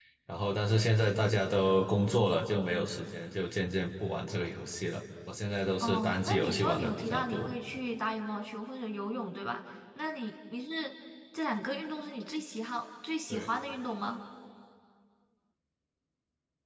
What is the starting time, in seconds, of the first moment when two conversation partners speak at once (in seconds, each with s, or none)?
5.8 s